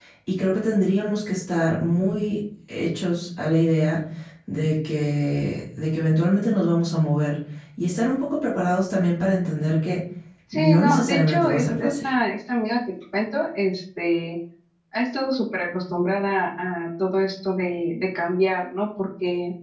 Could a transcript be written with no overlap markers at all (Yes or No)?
No